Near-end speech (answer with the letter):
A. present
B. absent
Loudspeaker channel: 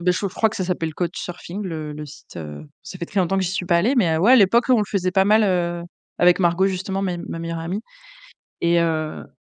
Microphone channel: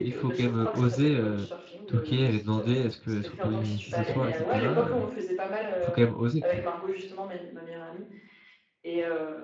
A